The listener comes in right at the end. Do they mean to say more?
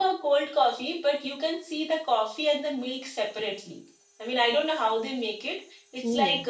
No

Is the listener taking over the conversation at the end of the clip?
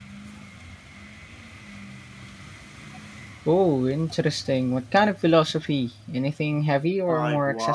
Yes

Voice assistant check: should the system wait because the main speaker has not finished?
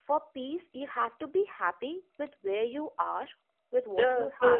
No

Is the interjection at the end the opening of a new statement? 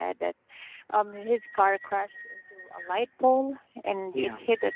No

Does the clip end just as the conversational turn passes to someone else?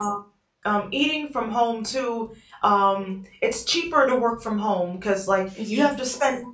No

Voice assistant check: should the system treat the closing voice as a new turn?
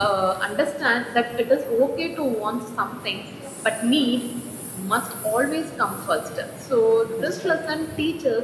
No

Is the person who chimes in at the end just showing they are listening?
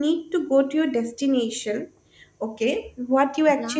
Yes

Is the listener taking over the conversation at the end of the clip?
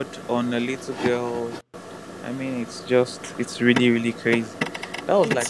No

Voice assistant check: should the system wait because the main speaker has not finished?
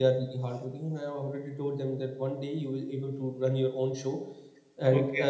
Yes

